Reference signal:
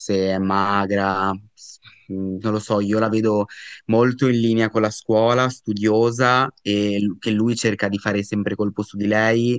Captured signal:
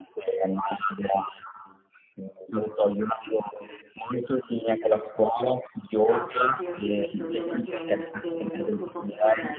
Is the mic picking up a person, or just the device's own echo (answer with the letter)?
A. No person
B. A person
B